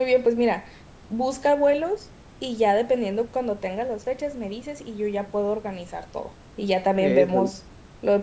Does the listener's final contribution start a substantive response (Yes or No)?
No